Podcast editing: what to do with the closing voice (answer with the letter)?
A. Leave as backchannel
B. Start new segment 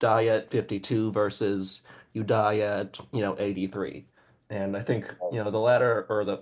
A